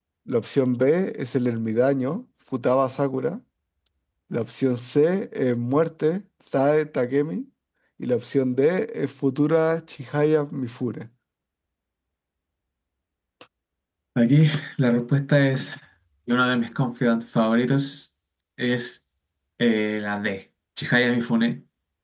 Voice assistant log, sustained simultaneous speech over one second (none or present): none